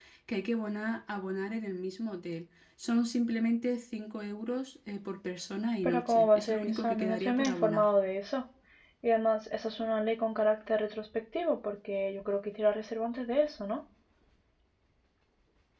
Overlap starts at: 5.8 s

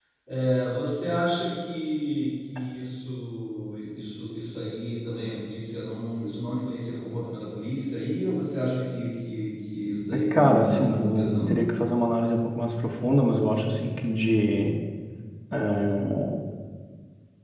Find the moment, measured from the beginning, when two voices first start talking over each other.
10.3 s

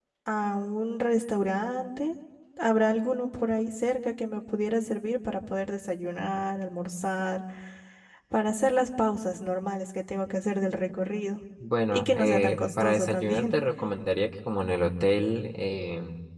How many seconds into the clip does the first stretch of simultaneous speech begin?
11.9 s

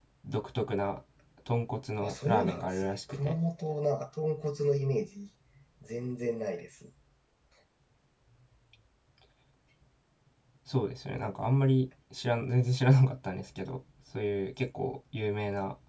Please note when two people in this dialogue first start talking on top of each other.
2.0 s

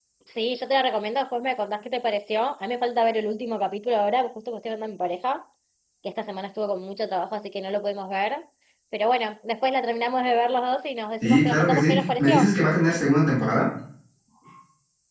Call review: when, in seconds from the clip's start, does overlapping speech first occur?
11.2 s

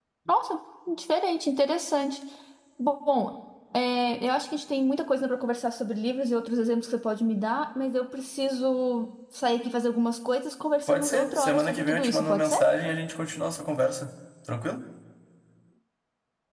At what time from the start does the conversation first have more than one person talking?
10.9 s

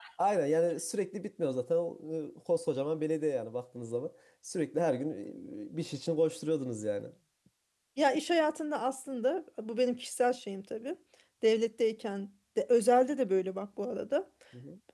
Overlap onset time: none

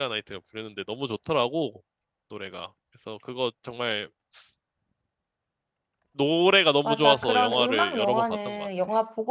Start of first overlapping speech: 6.8 s

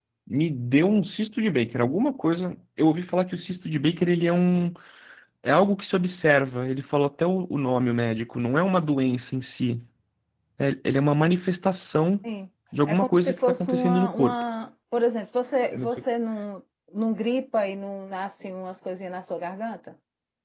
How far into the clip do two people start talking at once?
12.9 s

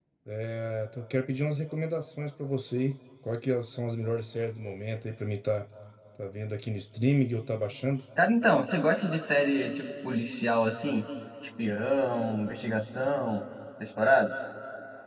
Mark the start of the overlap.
none

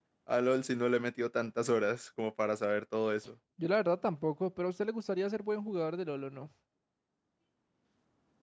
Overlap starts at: none

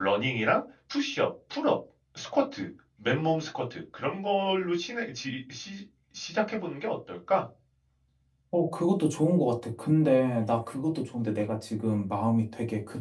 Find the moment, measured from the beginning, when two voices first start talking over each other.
none

